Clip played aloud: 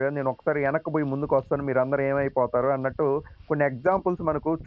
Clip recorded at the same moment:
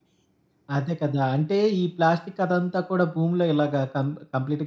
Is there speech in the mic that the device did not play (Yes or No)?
Yes